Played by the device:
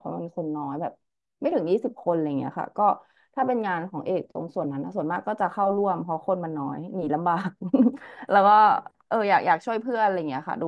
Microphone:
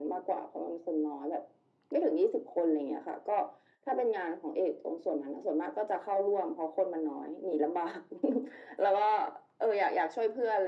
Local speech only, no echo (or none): none